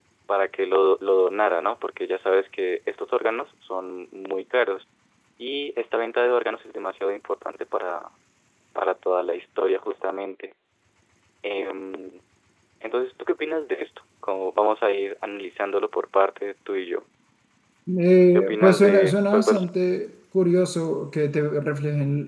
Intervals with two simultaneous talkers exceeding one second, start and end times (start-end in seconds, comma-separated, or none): 18.4-19.6